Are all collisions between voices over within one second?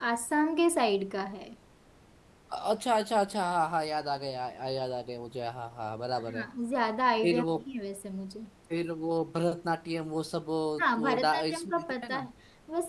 No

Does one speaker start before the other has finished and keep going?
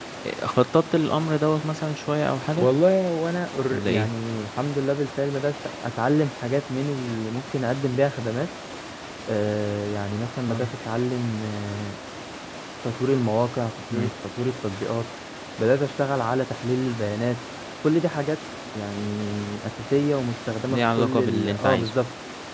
Yes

